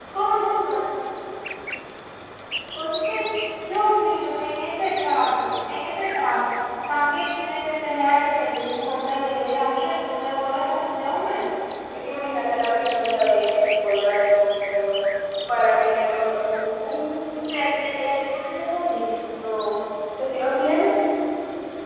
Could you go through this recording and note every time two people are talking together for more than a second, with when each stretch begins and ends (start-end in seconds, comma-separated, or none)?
none